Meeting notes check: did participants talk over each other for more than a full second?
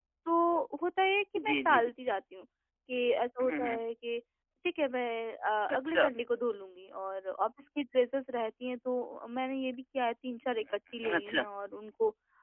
No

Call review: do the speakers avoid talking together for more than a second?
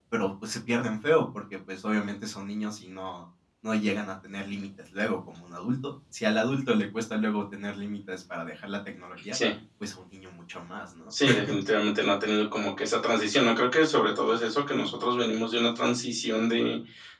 Yes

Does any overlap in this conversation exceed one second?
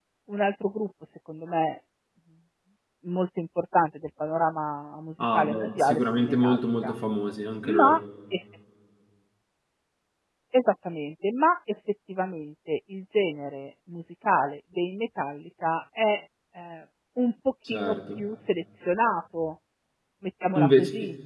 Yes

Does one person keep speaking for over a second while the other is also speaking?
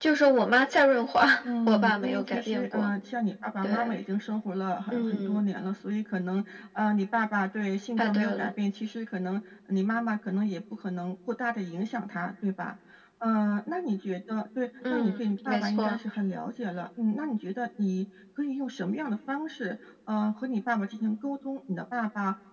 Yes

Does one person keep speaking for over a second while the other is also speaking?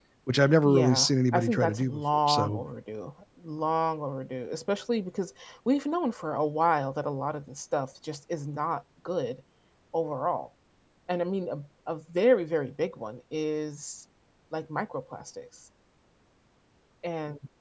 Yes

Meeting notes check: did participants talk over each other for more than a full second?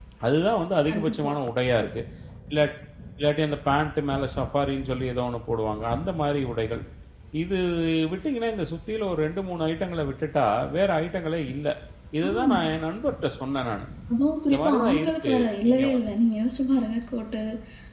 Yes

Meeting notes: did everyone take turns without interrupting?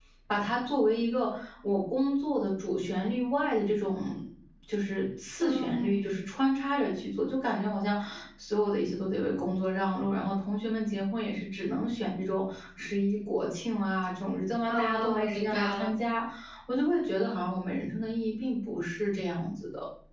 No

